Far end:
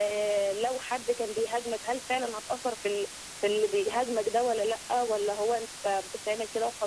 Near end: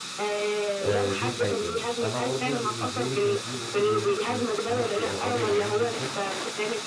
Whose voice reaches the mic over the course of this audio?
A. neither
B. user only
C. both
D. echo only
C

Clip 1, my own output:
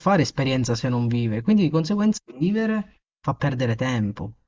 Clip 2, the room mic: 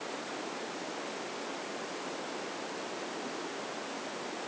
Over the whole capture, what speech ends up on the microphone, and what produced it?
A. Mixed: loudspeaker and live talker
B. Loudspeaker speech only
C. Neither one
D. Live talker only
C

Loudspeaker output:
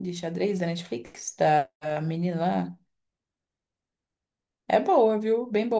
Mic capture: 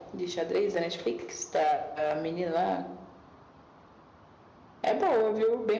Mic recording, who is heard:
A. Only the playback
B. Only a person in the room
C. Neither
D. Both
A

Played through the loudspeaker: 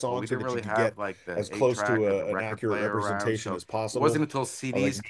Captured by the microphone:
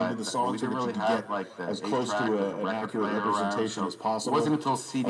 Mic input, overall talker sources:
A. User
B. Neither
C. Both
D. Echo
D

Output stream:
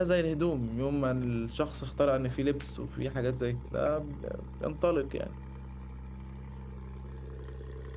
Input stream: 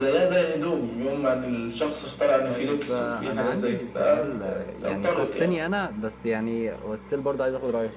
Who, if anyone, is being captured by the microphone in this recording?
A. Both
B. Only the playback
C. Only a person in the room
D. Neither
A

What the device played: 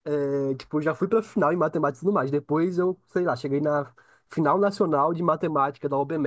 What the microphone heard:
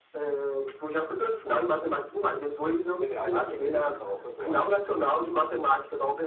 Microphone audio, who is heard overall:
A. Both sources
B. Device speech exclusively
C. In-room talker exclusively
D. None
A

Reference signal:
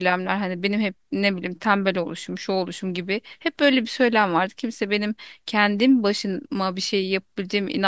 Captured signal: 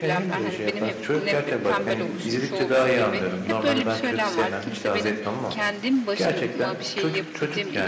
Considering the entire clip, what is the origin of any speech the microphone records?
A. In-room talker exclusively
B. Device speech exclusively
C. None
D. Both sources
D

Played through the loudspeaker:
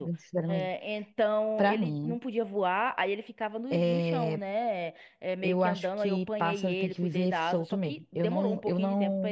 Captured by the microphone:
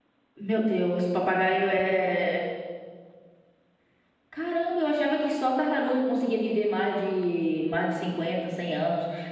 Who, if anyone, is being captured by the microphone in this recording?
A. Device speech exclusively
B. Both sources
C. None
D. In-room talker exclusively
D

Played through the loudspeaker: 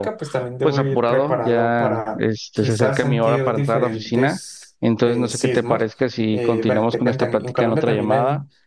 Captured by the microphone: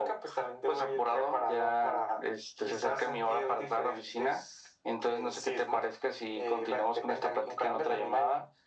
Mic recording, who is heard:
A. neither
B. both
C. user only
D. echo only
D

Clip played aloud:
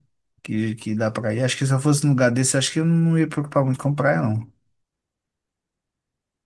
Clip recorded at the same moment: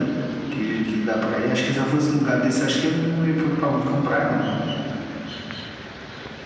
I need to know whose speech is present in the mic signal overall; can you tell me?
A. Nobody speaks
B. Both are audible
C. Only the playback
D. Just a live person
C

